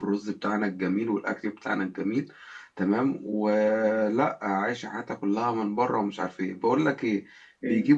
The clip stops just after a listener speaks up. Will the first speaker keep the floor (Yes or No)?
Yes